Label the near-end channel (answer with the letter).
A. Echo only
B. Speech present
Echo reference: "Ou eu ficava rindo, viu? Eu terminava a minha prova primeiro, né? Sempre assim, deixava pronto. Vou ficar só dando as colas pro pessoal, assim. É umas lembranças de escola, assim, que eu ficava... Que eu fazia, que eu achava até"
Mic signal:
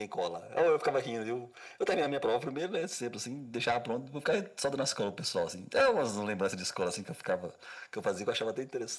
A